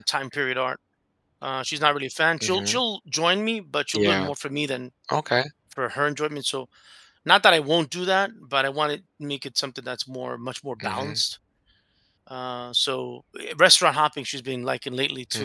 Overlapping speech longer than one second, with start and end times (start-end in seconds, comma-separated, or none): none